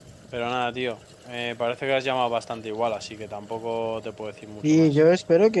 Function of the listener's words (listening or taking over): taking over